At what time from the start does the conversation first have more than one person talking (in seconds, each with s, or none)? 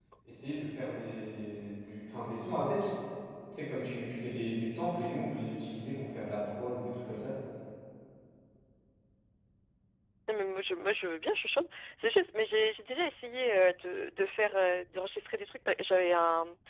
none